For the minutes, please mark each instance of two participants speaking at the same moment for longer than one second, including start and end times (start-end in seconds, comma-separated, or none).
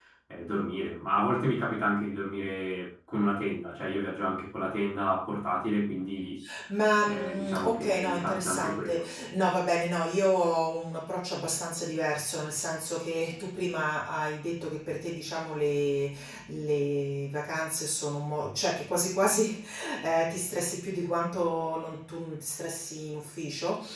7.0-9.0